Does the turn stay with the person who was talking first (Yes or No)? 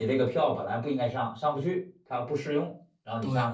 No